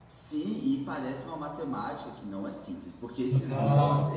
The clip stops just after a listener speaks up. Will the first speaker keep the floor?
Yes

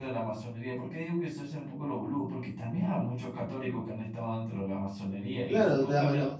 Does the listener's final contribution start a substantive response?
Yes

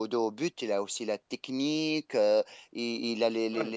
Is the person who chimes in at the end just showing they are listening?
Yes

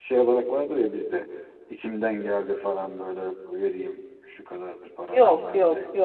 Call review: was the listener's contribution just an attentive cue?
No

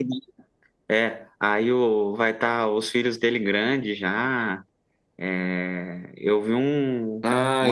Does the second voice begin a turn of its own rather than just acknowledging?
Yes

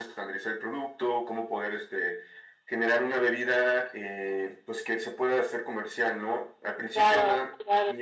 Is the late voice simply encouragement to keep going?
Yes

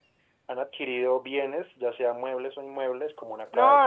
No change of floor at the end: No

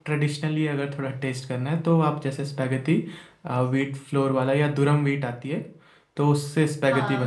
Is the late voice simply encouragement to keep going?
No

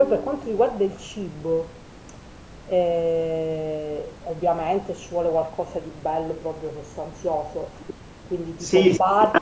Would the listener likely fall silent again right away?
No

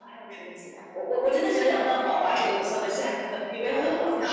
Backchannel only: No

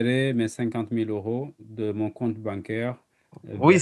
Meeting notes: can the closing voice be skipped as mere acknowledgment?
No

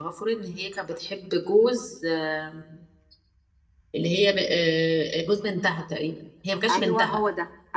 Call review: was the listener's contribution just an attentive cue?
No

